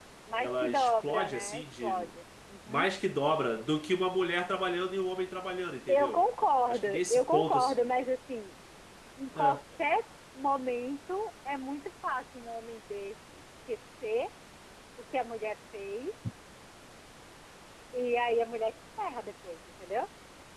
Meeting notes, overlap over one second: present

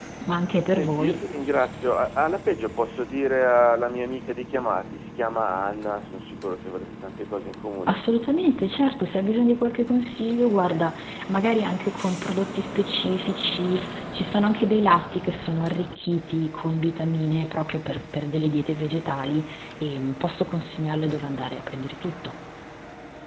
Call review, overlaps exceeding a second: none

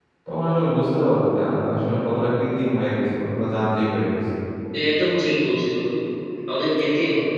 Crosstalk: none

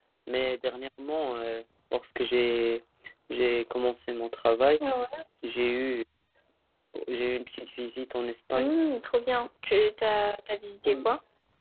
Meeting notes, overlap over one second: none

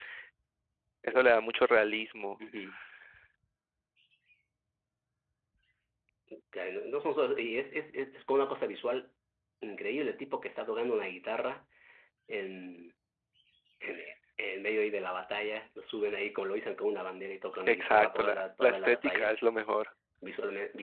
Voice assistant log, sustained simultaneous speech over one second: present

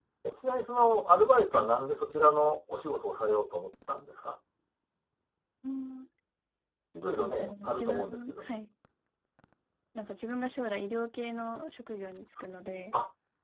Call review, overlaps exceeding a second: present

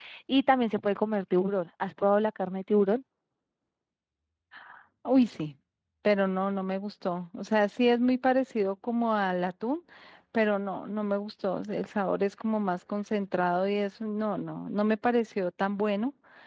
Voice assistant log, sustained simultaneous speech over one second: none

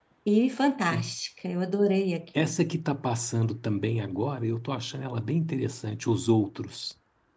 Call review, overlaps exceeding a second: none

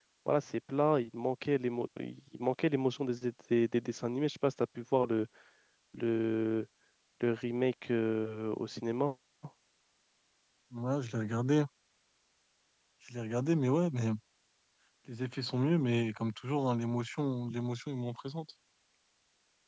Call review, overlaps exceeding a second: none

